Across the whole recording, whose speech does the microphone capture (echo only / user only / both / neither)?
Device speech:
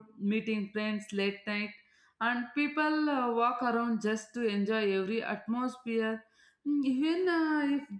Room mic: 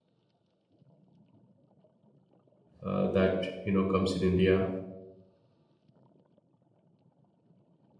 user only